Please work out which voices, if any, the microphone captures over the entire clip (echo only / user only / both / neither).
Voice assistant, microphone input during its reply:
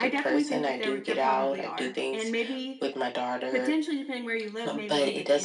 both